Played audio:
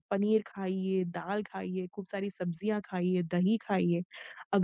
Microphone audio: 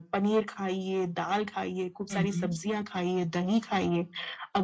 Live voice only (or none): हुँ, हुँ।